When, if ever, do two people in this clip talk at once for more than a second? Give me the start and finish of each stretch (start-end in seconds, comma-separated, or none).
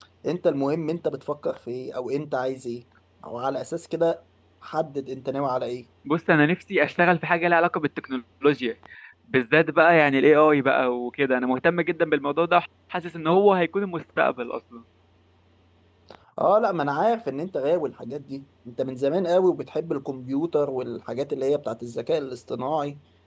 none